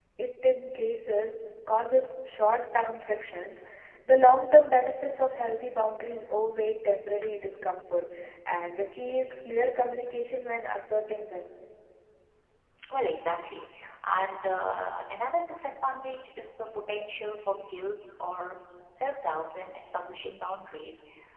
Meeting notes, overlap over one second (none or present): none